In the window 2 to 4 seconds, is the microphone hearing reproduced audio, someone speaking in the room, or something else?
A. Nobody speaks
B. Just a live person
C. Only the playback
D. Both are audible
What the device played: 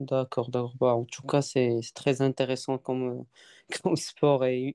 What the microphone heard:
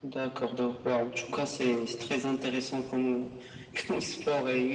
C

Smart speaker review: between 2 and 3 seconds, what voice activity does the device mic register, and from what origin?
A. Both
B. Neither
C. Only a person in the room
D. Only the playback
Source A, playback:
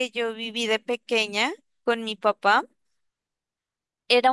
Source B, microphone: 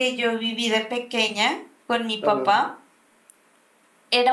A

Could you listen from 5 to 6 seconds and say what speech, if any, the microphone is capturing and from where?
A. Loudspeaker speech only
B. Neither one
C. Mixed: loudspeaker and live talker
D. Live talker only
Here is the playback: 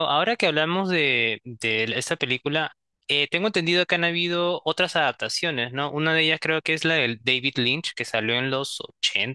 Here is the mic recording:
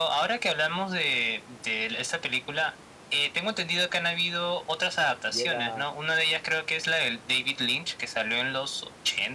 C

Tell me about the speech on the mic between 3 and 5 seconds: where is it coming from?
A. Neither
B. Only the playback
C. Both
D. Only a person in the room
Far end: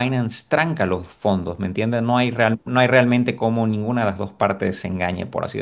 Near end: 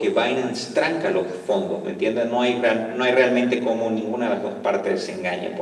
B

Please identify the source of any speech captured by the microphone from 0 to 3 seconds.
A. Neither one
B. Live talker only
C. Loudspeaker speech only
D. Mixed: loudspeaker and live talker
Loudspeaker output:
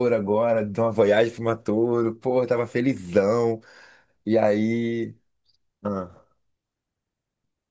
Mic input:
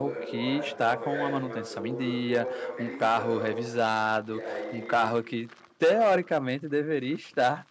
D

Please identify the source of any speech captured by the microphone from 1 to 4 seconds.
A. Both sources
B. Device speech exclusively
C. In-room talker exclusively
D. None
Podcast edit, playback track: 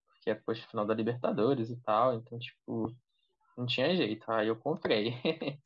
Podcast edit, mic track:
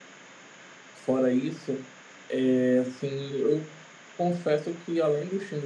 C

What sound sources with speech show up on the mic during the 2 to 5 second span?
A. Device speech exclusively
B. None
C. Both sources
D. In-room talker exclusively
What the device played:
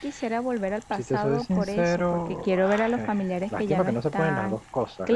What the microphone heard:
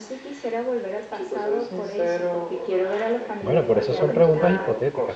C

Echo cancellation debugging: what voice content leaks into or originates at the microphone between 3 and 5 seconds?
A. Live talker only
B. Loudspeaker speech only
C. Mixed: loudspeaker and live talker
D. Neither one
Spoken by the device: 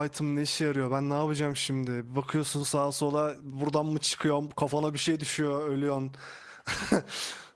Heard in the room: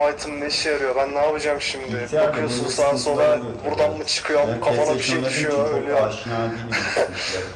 C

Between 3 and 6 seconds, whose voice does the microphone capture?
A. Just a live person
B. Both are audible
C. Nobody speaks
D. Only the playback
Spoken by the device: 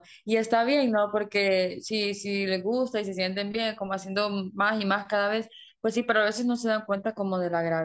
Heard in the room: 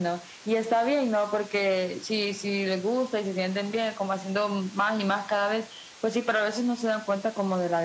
D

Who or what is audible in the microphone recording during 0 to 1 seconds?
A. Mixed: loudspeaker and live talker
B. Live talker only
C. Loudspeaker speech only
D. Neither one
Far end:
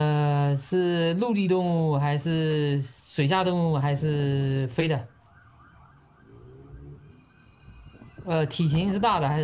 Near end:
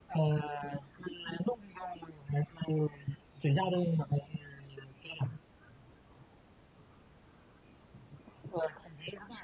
C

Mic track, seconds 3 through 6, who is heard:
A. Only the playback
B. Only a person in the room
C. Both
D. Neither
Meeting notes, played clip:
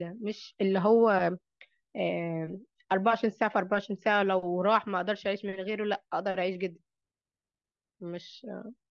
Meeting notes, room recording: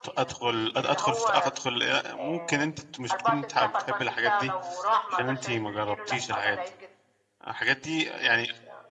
C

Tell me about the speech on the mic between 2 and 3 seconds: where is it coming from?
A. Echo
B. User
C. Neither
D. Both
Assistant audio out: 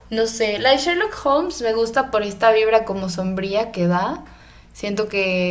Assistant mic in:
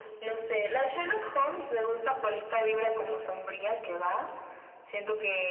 A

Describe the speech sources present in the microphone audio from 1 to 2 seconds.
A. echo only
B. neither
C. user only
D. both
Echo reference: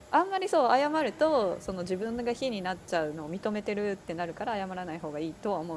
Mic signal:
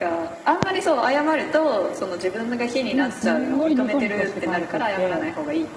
A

